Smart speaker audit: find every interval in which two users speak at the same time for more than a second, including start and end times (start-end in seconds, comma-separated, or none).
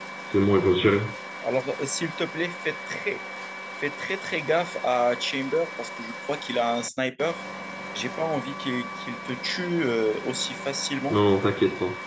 none